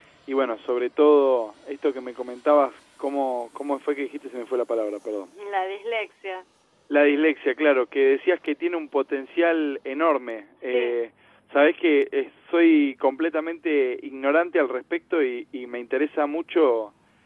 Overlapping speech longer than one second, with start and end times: none

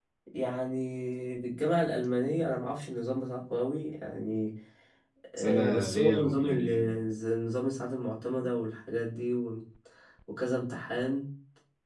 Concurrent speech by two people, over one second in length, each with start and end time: 5.4-6.9

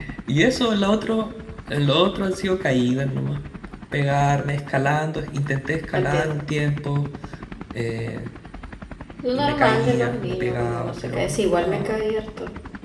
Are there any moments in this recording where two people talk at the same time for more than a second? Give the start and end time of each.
9.3-12.0

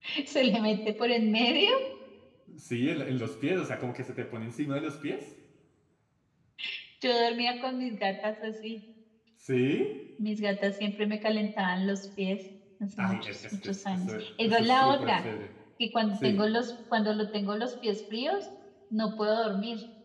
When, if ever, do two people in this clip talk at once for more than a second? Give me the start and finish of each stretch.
13.0-15.2

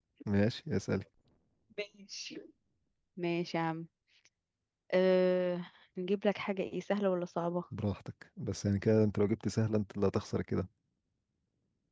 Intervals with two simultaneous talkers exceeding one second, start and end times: none

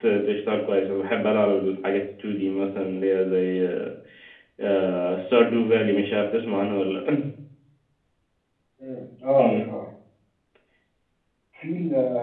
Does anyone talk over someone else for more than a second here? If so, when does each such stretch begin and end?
none

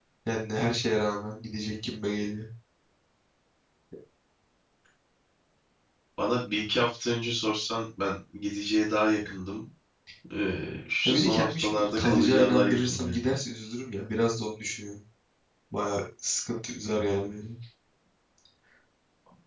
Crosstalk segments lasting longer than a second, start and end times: 11.1-13.2

